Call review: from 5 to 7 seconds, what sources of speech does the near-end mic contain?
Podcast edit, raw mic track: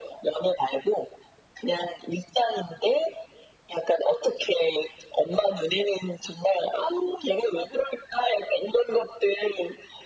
echo only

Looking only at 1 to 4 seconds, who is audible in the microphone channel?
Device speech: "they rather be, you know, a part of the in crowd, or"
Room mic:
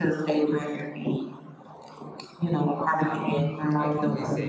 both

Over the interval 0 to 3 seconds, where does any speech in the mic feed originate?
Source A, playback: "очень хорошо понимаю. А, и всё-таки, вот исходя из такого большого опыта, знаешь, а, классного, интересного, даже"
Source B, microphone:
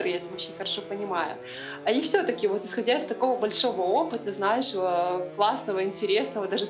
echo only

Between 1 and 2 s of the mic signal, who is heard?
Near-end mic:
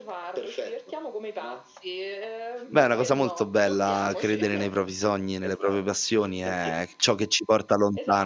echo only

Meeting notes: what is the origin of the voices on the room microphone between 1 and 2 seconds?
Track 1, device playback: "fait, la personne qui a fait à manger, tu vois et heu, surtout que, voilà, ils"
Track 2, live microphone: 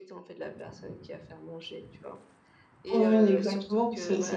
echo only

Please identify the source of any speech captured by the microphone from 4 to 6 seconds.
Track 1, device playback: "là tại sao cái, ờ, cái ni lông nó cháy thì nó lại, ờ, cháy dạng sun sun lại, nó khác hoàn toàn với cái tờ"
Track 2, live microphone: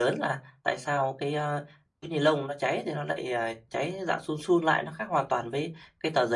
echo only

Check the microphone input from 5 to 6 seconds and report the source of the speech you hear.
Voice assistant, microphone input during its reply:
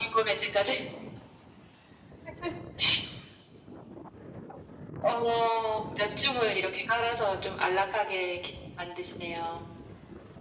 echo only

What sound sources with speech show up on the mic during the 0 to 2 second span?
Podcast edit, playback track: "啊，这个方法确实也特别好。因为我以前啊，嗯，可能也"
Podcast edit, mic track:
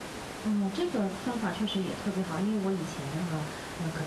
echo only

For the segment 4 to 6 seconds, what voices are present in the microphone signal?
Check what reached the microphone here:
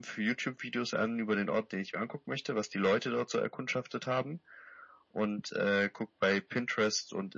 echo only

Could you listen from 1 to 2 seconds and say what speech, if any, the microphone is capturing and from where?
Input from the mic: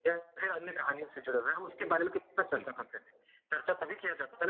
echo only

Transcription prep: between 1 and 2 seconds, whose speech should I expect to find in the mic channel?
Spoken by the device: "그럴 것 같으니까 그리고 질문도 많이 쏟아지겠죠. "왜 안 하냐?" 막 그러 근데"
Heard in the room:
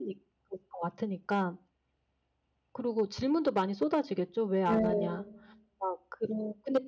echo only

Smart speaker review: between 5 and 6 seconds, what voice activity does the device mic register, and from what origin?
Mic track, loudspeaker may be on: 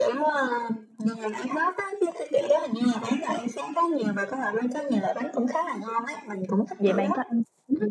echo only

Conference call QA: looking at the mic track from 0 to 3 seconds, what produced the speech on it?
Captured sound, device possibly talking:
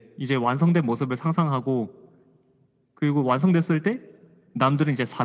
echo only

